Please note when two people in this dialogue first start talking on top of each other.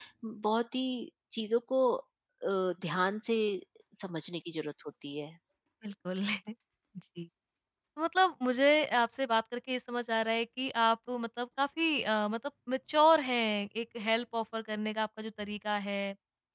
none

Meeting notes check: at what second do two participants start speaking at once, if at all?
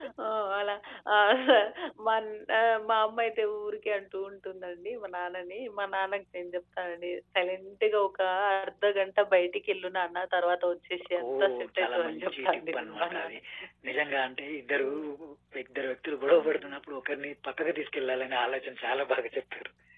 11.3 s

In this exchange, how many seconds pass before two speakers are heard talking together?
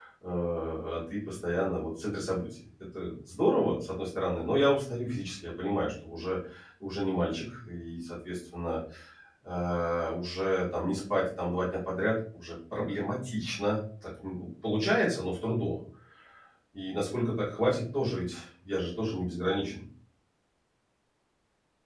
none

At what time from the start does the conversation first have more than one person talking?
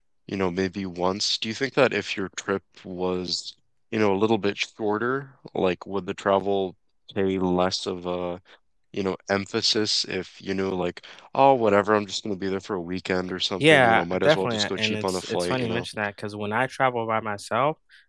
13.6 s

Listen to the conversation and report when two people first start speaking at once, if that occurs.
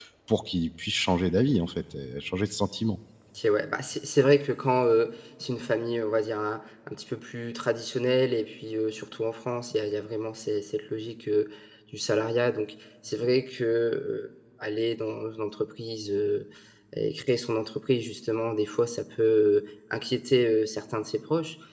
none

